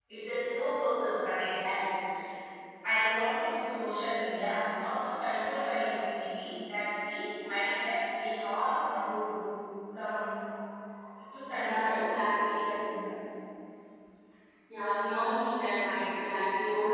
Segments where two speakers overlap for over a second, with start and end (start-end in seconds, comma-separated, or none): 11.6-12.8